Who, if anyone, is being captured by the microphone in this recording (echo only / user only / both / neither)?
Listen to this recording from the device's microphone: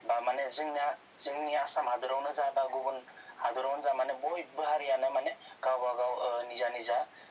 echo only